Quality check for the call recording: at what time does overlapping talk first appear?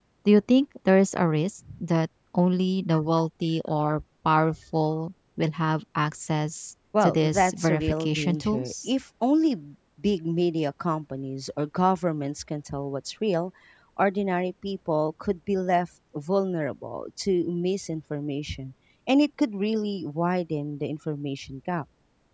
6.9 s

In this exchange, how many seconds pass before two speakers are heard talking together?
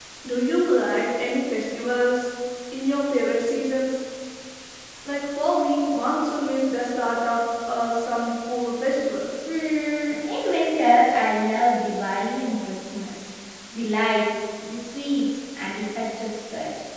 none

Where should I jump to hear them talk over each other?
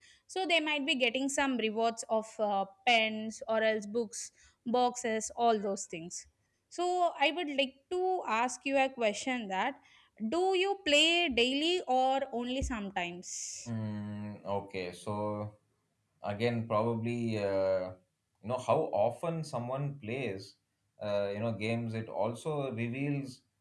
none

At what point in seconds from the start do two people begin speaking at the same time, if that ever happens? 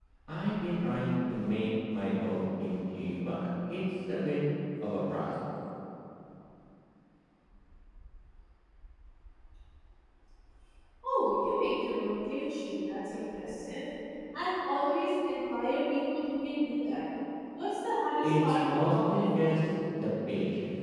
18.2 s

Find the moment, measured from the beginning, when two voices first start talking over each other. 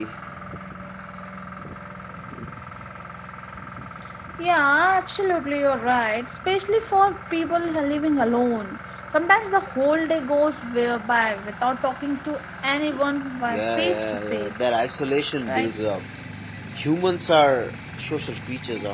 13.5 s

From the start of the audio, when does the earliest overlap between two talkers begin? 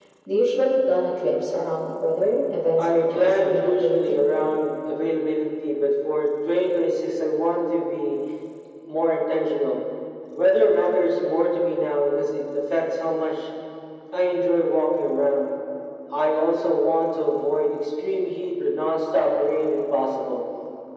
2.8 s

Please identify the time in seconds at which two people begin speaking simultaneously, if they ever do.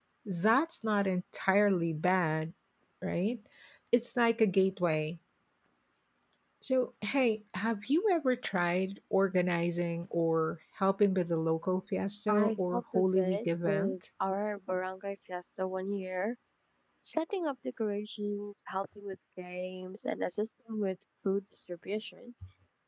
12.3 s

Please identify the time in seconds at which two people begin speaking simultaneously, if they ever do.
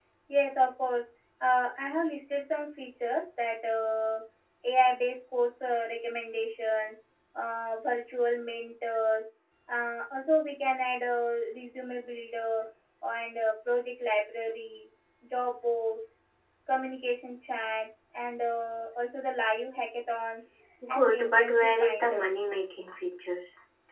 20.9 s

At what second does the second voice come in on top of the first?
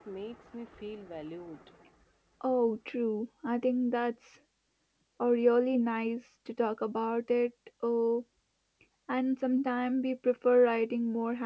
none

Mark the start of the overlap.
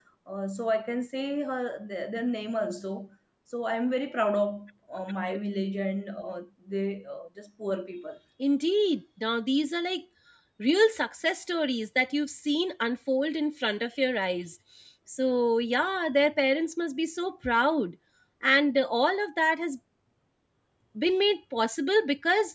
none

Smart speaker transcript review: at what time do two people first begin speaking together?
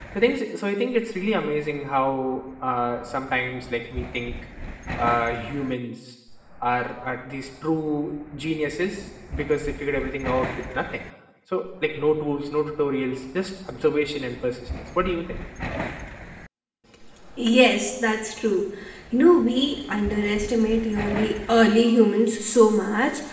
none

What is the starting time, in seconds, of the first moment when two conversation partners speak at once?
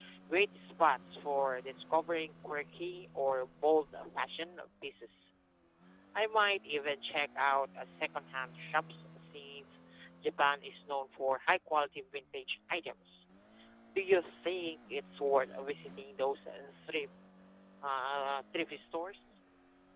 none

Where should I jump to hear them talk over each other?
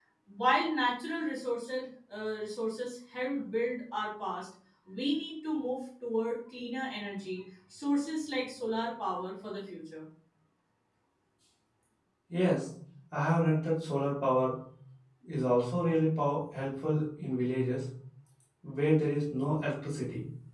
none

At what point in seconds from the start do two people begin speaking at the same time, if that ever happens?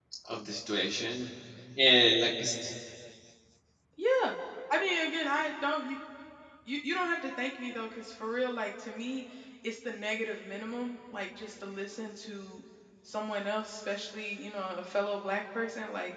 none

